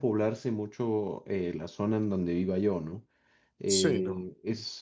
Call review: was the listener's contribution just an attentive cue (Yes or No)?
Yes